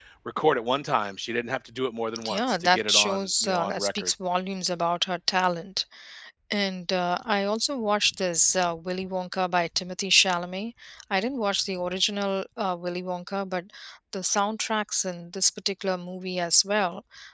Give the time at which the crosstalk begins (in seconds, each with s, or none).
2.2 s